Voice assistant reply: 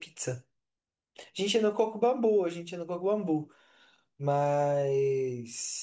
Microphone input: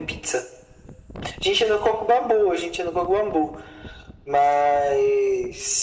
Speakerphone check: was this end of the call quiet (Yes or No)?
Yes